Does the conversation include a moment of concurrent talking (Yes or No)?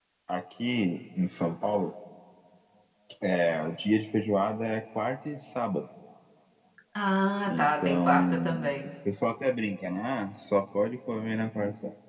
Yes